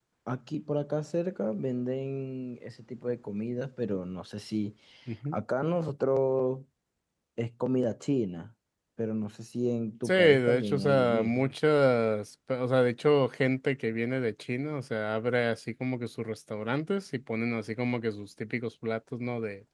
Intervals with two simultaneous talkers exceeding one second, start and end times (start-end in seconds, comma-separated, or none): 10.0-11.5